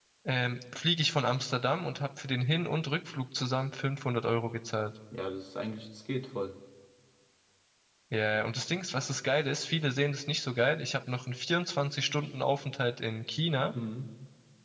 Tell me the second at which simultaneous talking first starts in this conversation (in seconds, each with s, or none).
none